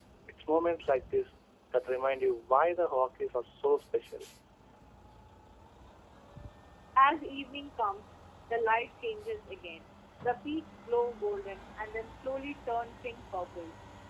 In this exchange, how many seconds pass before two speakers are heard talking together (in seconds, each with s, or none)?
none